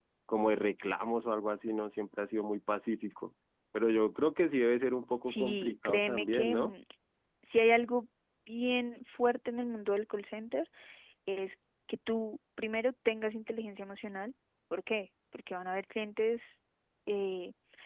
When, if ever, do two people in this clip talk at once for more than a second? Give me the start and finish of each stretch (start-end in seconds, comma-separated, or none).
5.2-6.7